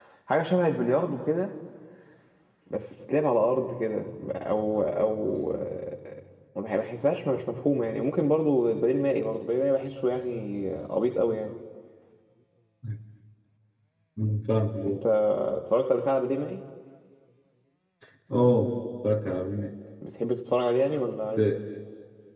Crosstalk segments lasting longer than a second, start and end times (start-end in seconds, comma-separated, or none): none